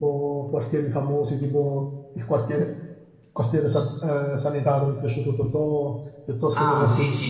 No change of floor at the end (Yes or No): No